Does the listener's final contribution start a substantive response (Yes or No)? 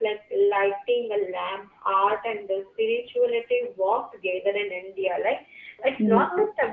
No